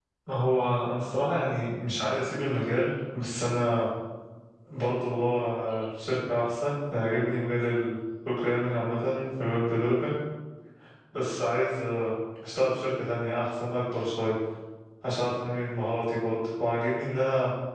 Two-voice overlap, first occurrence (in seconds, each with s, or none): none